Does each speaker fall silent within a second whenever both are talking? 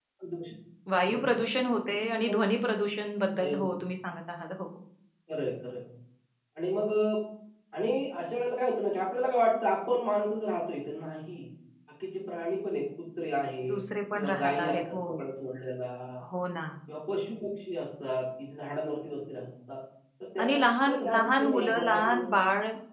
No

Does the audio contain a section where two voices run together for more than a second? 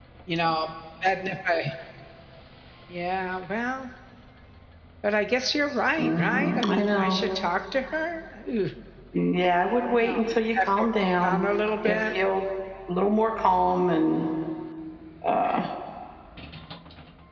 Yes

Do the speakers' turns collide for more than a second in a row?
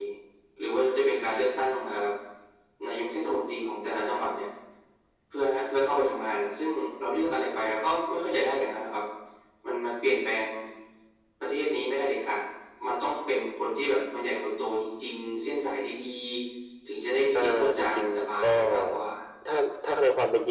Yes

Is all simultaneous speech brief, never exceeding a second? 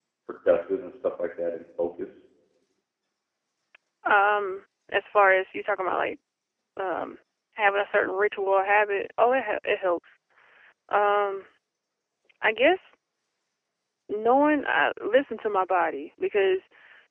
Yes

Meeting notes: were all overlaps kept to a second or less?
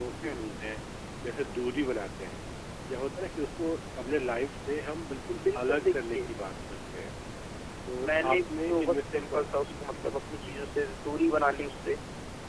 No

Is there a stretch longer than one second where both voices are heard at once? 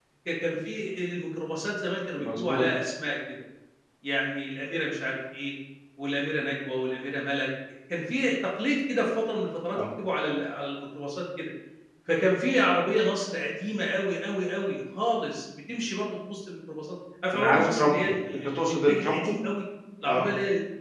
Yes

